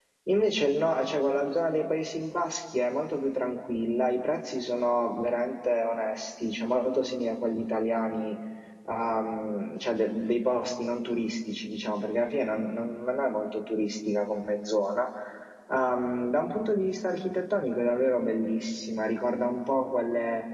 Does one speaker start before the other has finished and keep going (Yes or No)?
No